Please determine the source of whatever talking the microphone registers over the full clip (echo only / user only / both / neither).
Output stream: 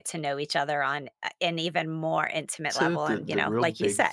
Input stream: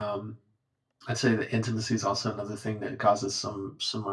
user only